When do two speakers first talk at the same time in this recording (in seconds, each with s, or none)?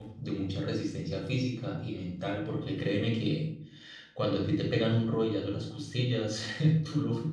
none